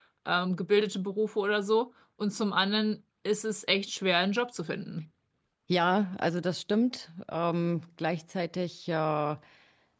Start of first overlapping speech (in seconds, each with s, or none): none